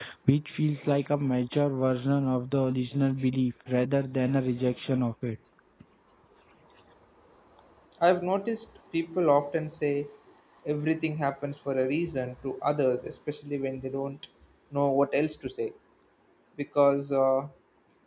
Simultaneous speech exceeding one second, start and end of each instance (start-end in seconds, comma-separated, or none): none